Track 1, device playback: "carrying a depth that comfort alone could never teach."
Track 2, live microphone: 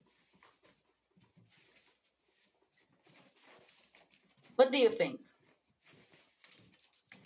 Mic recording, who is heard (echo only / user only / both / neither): user only